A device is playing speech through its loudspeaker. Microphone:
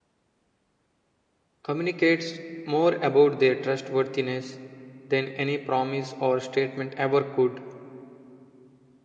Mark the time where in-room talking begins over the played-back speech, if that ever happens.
1.6 s

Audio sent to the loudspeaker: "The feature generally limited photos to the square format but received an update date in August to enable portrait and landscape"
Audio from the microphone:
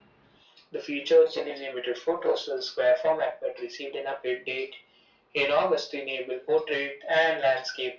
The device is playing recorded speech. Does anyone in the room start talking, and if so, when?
none

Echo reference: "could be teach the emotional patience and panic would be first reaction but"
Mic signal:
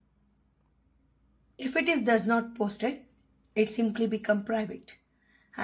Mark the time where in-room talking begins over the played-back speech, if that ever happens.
1.6 s

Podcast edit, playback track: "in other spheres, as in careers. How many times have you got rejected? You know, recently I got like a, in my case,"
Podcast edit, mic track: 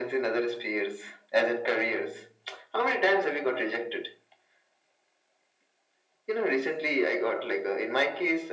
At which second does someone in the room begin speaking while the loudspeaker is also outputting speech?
none

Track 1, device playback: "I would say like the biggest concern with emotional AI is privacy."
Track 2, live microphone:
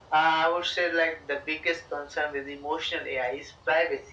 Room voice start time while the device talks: none

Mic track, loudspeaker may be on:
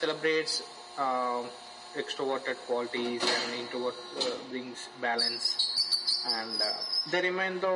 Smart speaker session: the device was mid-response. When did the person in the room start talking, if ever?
none

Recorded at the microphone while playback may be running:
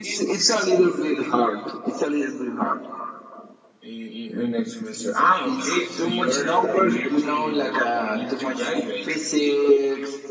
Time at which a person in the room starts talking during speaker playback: none

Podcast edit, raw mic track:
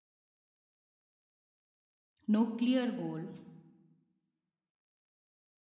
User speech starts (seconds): 2.3 s

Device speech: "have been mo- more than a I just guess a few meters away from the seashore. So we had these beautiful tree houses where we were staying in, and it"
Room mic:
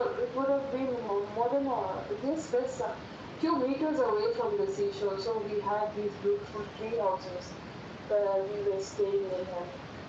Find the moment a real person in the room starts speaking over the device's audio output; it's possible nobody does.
none

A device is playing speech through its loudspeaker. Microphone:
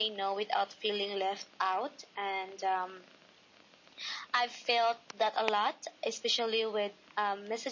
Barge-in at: none

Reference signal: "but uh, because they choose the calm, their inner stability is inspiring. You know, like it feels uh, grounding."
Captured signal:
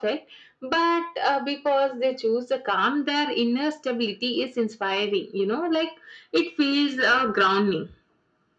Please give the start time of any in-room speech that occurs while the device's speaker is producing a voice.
none

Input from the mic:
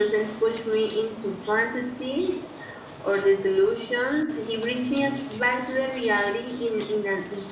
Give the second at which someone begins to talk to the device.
none

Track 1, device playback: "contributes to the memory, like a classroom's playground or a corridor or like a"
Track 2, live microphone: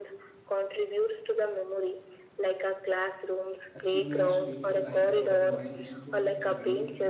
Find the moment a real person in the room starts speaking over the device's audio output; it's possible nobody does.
3.7 s

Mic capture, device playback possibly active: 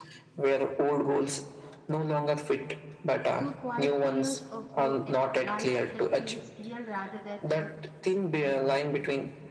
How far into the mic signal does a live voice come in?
3.4 s

